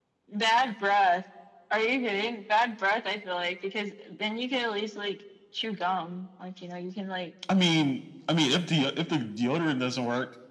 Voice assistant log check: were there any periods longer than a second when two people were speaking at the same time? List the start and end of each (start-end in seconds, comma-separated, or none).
none